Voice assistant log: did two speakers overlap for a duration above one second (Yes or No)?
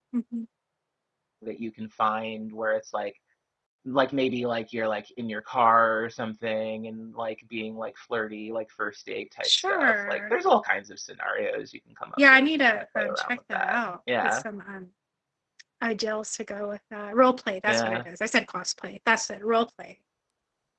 Yes